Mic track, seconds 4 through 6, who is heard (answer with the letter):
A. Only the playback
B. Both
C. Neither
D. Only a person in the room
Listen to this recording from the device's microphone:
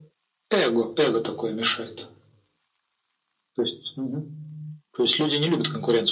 A